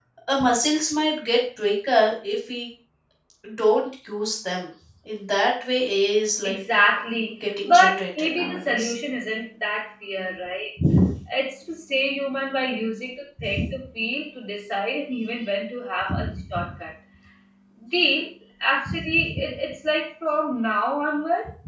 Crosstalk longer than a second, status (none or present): present